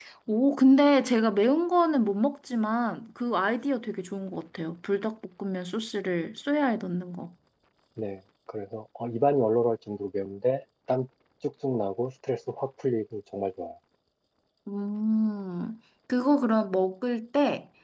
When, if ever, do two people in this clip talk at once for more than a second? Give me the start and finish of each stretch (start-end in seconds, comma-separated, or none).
none